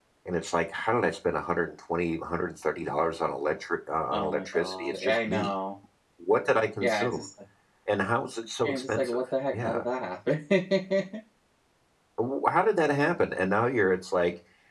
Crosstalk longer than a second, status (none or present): present